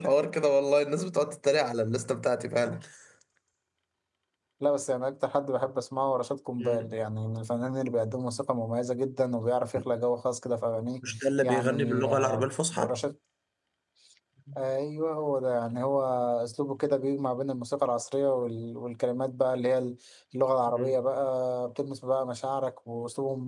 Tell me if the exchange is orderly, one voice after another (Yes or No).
No